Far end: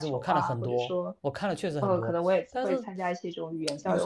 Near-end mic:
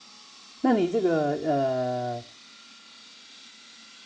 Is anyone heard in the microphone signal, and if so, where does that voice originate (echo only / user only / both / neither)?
user only